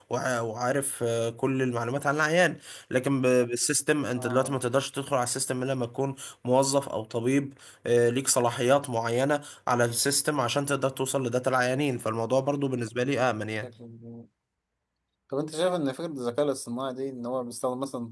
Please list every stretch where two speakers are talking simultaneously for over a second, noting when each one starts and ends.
none

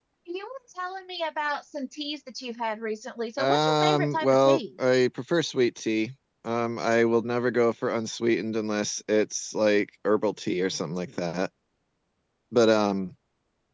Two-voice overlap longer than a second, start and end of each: 3.4-4.6

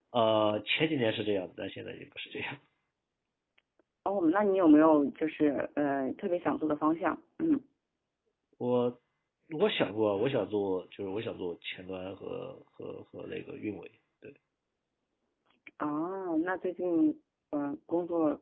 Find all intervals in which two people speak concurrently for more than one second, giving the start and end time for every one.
none

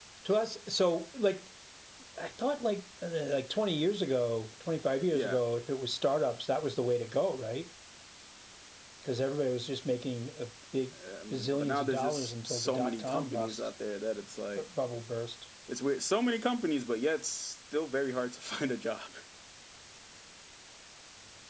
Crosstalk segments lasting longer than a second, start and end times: 11.3-13.6

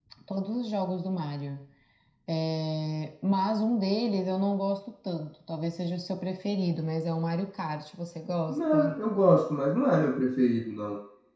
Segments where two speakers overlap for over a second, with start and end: none

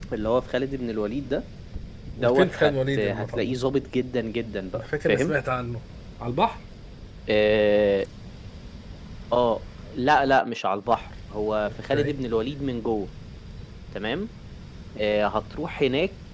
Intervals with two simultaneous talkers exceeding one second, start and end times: 2.2-3.5

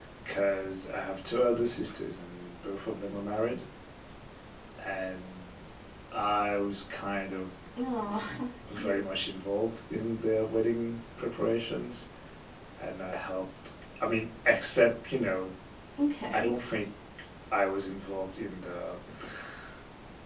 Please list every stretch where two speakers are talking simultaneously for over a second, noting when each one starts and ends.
none

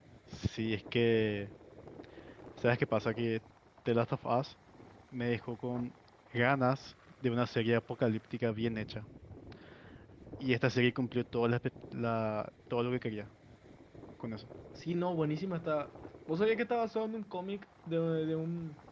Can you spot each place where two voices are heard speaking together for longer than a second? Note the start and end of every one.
none

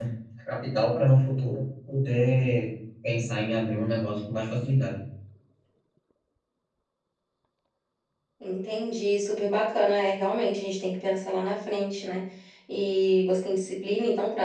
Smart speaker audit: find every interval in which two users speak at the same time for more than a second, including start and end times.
none

